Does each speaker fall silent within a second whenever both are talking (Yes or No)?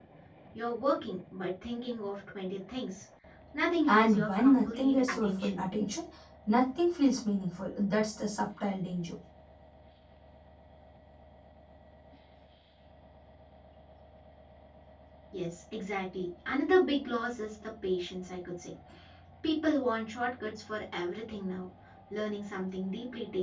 No